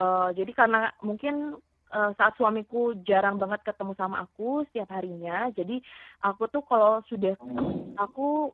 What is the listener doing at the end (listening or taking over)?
listening